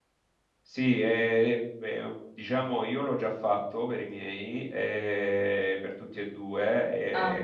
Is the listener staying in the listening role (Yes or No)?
Yes